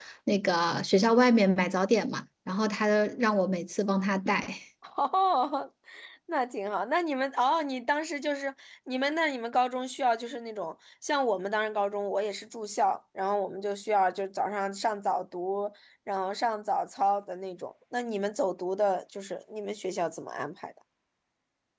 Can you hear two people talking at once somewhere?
No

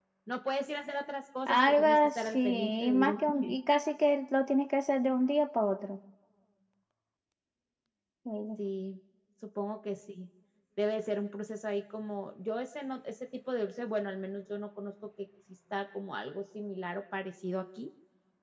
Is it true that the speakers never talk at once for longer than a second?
No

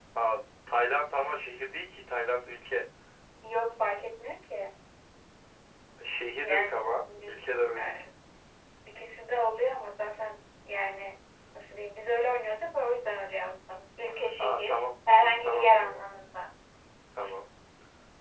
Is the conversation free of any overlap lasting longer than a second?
No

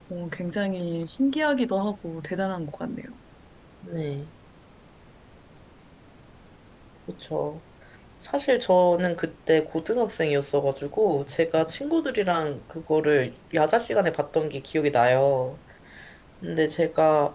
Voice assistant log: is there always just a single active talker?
Yes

